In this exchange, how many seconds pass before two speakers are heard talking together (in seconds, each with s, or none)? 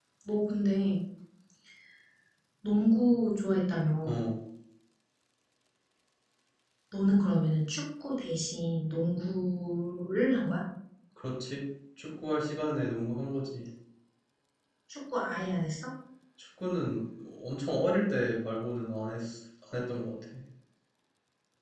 none